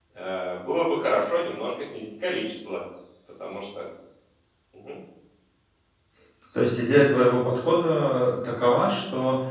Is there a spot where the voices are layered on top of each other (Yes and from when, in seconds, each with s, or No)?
No